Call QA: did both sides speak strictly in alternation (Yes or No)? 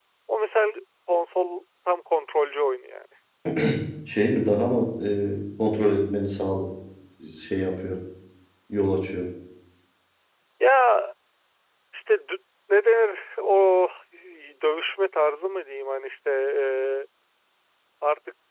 Yes